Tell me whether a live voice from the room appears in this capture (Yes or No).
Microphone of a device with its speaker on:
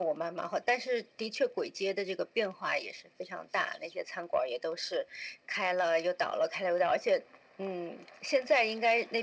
No